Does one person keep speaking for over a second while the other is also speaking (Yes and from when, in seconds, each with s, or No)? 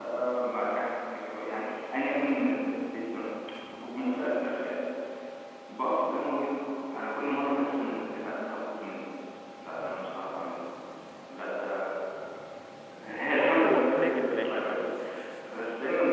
Yes, from 13.5 s